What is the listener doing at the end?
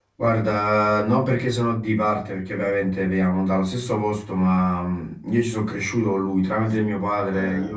listening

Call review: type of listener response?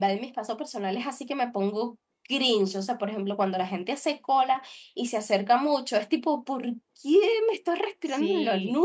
taking over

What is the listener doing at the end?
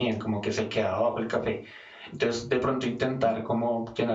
listening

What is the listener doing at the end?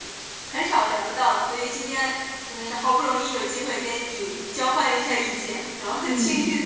listening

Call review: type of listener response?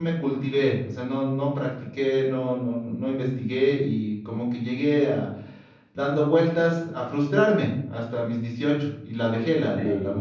listening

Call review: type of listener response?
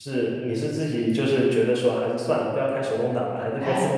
taking over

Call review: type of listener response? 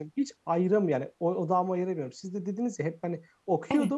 listening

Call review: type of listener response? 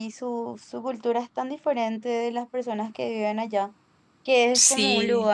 listening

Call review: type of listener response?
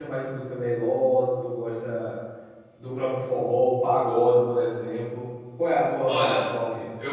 taking over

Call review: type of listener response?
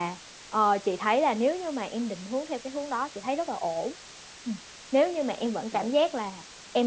listening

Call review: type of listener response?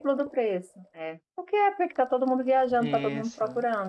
taking over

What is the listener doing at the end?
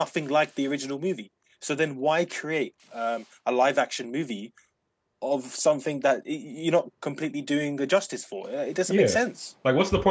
taking over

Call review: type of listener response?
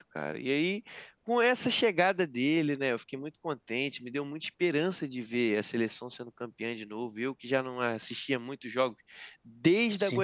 listening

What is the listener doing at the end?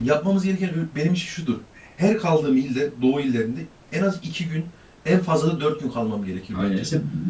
taking over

